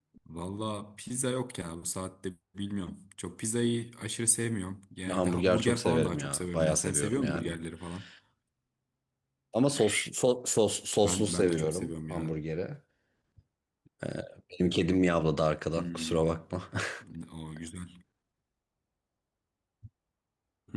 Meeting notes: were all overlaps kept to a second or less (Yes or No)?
No